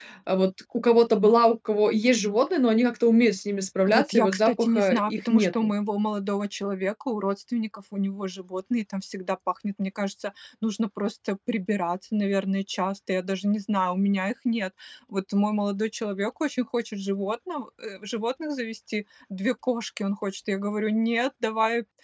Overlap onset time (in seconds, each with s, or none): 3.9 s